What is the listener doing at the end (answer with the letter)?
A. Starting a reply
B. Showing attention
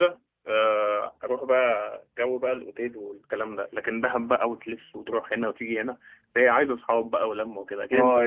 A